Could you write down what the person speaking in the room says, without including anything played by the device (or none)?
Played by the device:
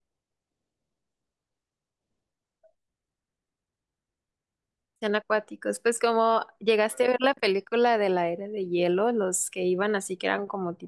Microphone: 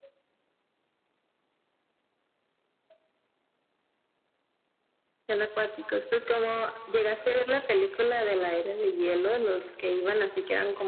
none